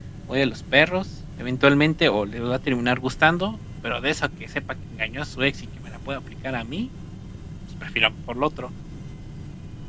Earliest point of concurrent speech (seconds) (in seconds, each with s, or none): none